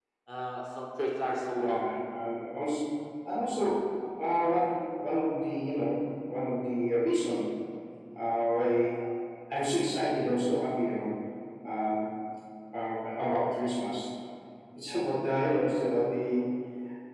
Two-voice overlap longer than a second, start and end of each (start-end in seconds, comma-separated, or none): none